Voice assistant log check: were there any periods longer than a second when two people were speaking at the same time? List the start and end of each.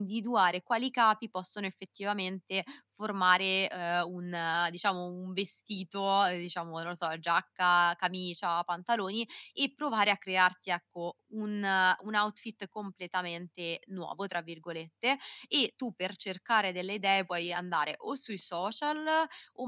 none

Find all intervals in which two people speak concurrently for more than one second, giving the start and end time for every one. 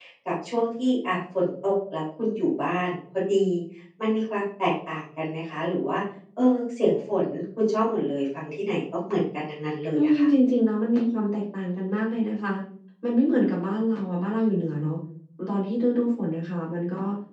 none

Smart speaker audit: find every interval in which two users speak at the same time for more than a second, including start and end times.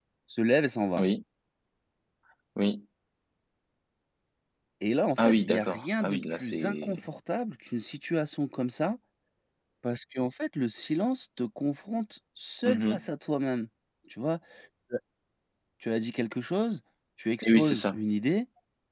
5.2-7.0

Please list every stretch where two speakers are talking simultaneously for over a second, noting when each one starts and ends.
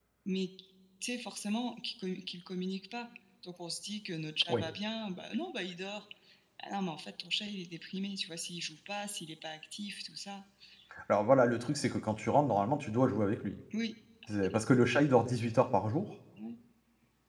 none

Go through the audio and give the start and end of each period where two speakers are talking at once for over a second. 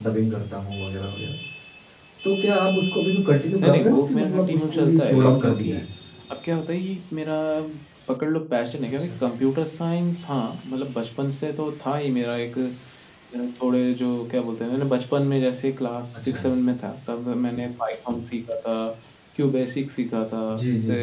3.6-5.8

